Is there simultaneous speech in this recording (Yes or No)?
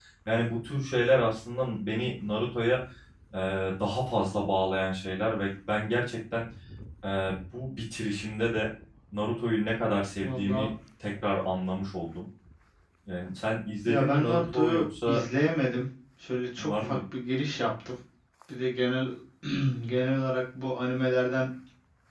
Yes